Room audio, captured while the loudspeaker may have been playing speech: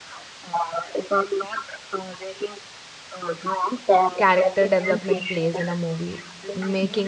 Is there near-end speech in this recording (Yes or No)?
Yes